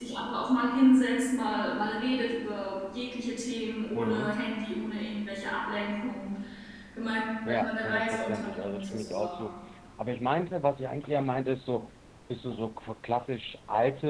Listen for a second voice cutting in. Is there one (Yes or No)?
Yes